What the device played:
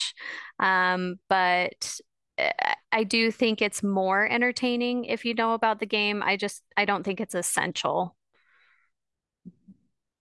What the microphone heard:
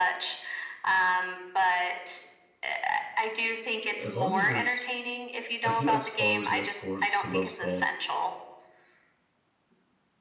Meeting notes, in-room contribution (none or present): present